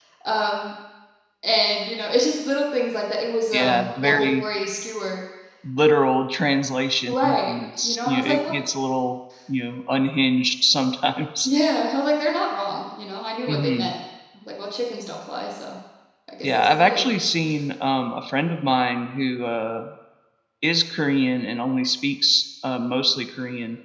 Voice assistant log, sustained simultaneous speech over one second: present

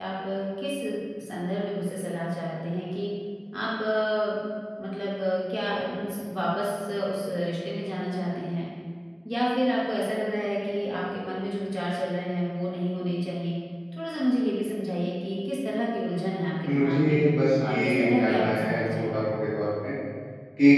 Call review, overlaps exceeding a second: present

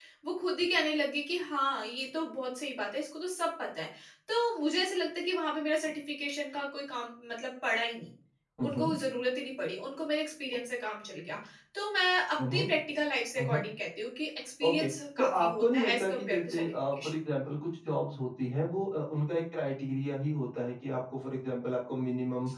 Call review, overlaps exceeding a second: present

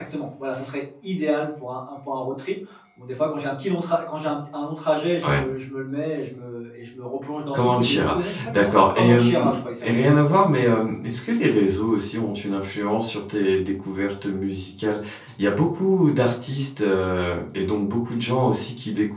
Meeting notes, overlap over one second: present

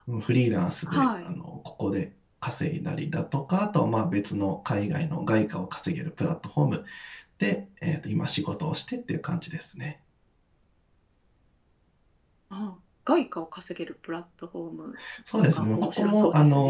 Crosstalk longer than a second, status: present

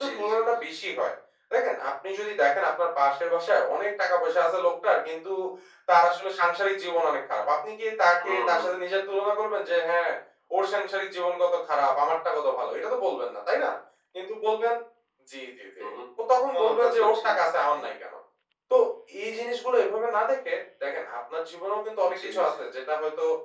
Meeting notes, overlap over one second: present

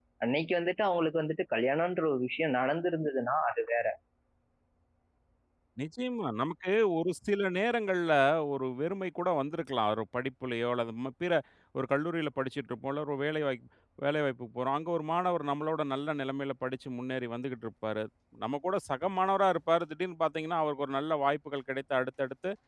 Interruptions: none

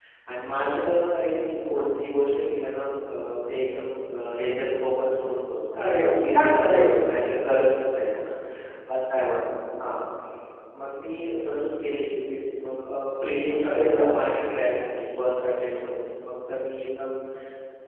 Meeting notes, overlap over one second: present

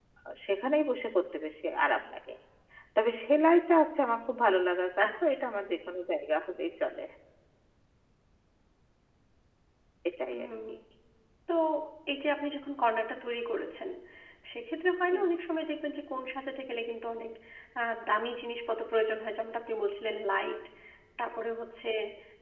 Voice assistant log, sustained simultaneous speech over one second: none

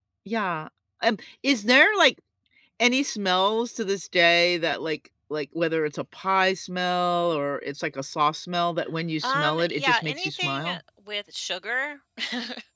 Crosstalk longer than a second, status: present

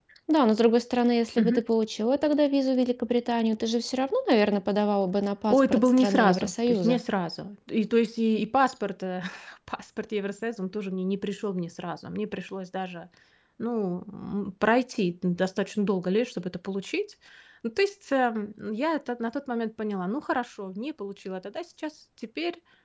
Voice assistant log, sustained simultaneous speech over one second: present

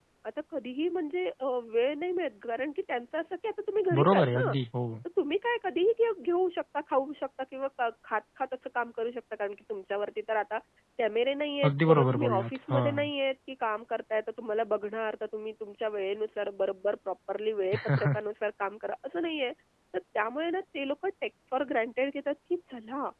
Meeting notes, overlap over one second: present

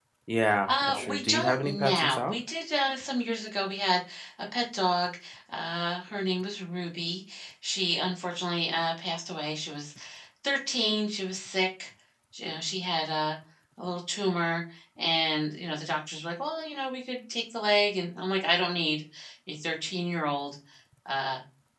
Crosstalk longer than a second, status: present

